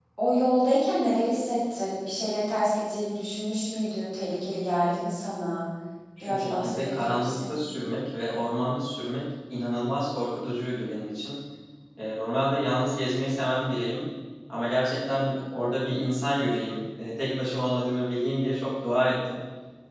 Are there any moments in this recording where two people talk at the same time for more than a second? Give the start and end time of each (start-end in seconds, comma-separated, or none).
6.2-7.5